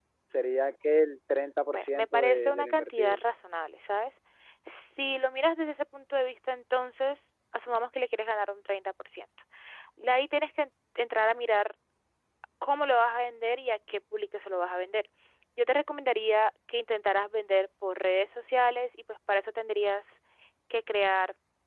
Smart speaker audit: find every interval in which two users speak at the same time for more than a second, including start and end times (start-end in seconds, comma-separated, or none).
1.7-3.2